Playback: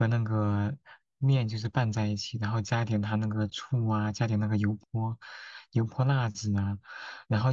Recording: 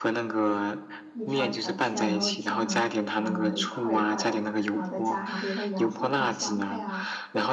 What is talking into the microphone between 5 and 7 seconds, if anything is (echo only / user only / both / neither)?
both